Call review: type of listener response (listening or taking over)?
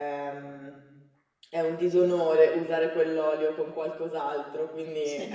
listening